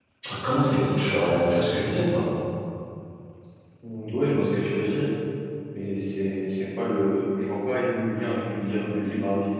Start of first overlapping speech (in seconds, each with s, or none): none